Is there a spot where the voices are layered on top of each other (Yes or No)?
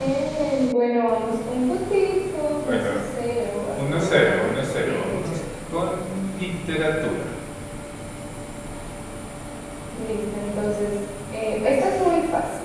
Yes